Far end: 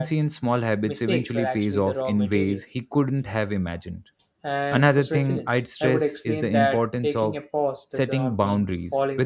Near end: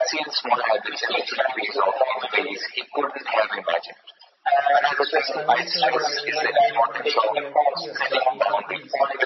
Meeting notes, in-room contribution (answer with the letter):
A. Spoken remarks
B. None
A